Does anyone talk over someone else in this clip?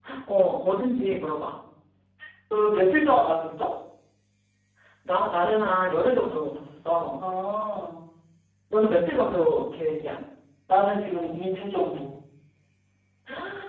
No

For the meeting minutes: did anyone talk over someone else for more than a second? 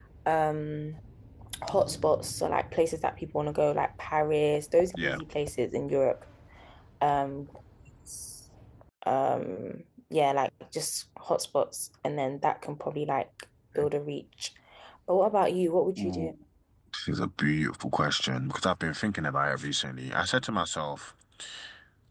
No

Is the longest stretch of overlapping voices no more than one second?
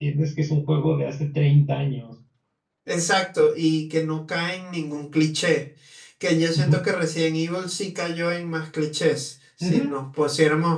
Yes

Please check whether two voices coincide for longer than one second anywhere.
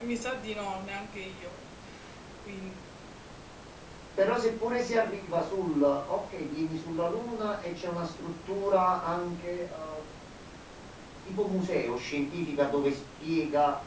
No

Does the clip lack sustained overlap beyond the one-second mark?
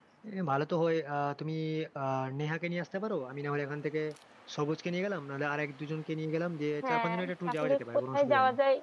No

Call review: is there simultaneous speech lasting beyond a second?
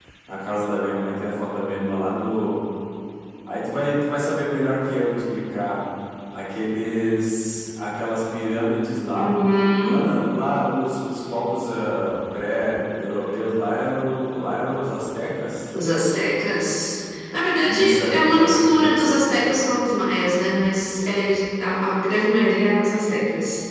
Yes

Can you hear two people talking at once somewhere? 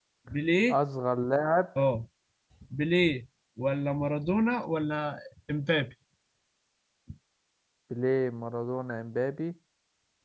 No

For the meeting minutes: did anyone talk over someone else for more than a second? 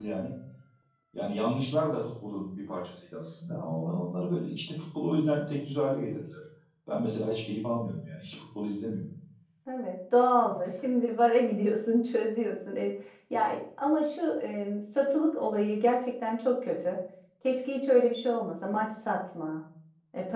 No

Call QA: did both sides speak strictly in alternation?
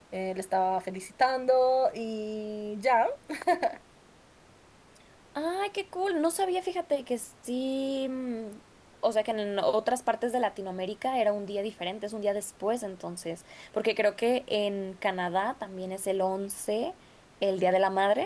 Yes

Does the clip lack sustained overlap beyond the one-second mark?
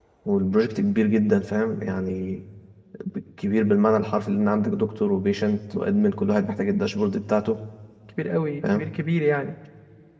Yes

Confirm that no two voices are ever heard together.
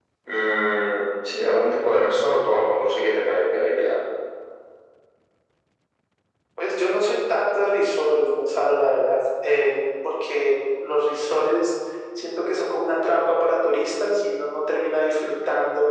Yes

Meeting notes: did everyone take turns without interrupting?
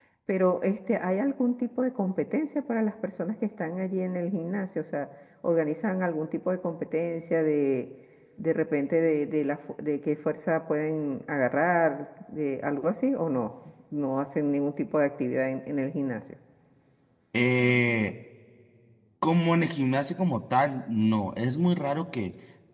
Yes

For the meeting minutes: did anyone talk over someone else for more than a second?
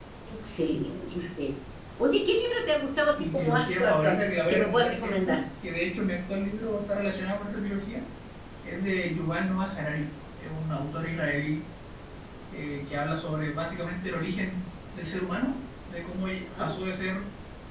Yes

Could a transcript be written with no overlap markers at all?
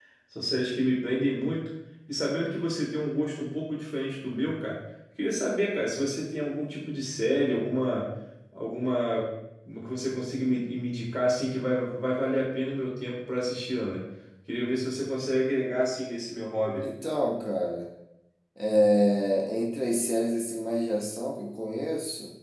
Yes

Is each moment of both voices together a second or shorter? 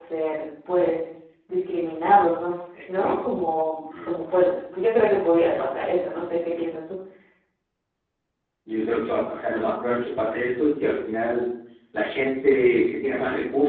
Yes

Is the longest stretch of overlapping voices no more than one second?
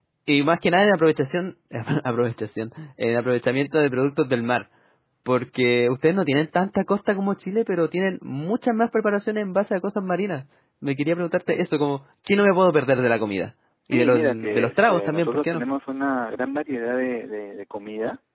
No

